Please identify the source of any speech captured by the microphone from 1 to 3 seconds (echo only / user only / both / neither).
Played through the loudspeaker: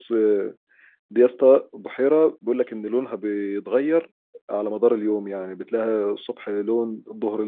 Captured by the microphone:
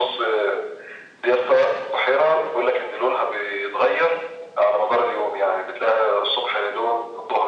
echo only